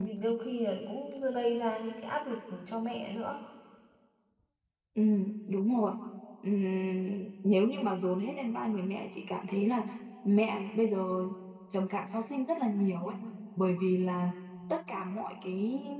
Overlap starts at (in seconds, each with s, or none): none